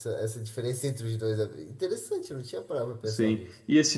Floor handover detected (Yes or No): Yes